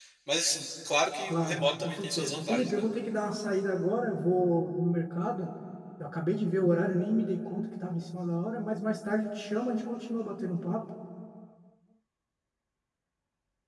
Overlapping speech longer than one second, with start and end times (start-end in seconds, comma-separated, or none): 1.3-2.8